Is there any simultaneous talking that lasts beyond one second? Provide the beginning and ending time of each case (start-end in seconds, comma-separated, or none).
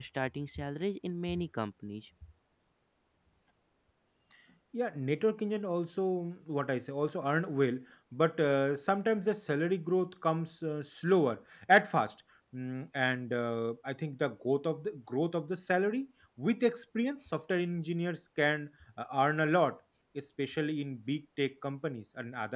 none